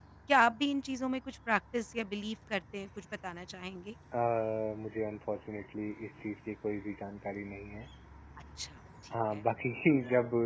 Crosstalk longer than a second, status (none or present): none